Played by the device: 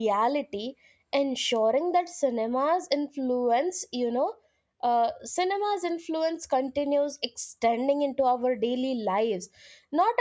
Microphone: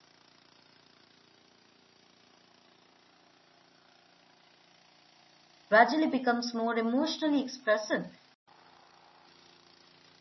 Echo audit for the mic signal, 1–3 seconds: neither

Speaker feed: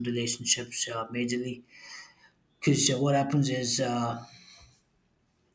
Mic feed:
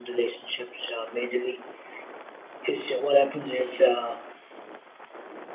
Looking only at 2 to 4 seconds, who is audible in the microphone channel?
echo only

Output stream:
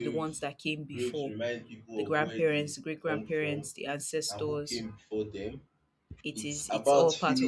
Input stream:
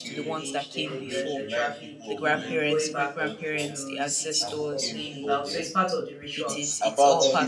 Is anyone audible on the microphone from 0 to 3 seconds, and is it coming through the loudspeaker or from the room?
both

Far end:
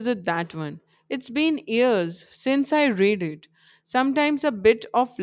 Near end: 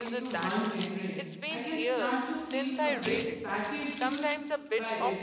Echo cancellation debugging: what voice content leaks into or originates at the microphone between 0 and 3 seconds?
both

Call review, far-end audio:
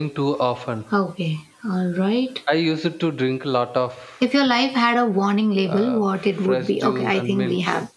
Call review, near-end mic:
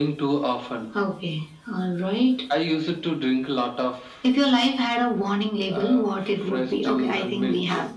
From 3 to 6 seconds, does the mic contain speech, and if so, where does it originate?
echo only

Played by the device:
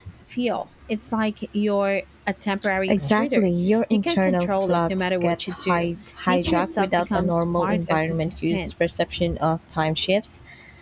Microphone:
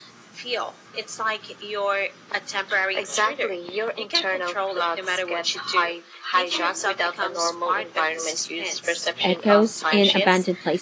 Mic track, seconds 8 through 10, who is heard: both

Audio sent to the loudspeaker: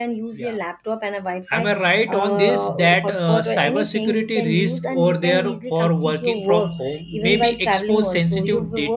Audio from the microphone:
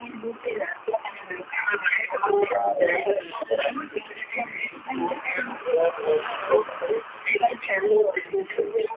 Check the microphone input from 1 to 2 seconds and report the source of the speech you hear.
echo only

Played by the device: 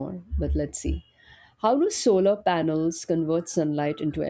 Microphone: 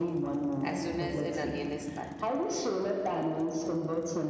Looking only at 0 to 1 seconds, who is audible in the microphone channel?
both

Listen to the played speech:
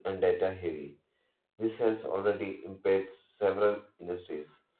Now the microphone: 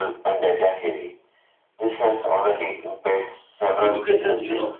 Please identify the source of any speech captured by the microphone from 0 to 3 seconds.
echo only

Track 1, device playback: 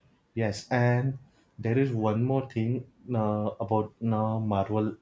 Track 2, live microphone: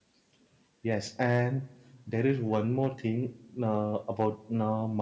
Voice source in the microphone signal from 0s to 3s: echo only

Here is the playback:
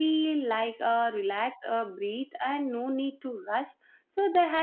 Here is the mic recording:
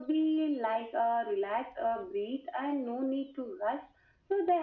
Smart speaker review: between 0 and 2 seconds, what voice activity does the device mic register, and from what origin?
echo only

